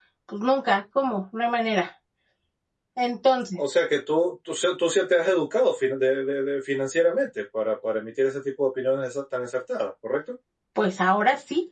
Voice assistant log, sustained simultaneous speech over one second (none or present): none